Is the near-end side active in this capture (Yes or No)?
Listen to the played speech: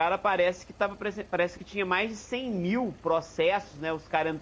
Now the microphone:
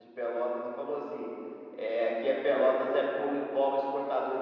Yes